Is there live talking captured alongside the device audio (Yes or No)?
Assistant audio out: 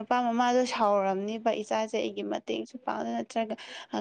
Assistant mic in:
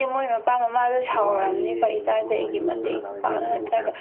Yes